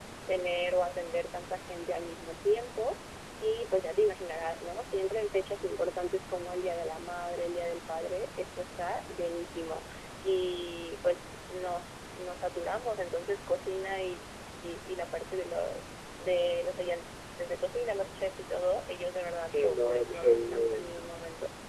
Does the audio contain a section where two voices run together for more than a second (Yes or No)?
Yes